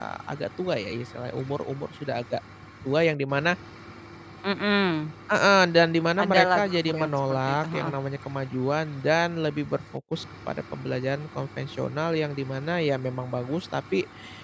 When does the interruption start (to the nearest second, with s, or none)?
6 s